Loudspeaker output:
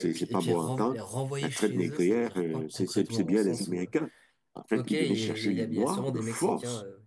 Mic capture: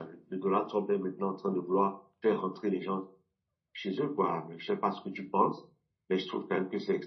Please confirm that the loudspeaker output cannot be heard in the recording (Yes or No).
Yes